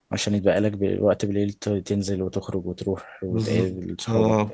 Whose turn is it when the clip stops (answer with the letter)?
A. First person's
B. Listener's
B